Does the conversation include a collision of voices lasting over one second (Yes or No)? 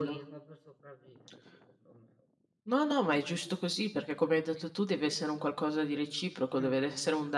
No